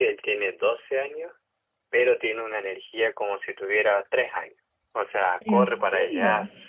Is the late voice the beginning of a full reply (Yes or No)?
No